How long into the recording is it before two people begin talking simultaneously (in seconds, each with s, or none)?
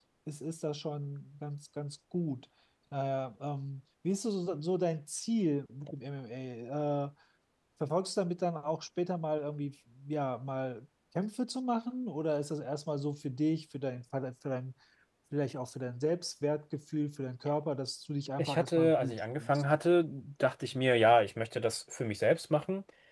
18.4 s